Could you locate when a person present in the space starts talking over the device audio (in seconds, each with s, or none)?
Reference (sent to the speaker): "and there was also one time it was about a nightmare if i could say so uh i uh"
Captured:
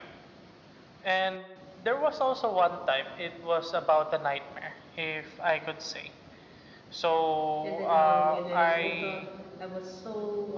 7.6 s